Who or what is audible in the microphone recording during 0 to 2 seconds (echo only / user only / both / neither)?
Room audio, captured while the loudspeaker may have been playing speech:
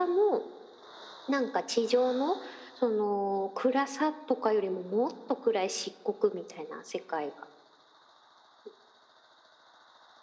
echo only